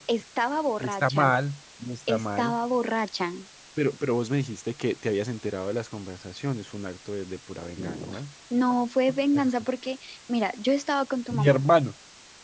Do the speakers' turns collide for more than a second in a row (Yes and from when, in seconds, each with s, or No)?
No